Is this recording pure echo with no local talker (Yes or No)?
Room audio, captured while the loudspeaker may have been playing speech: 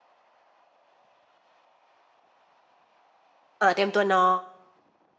No